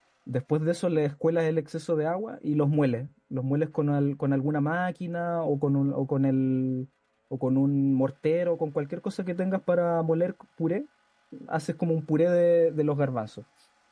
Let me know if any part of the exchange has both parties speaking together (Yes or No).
No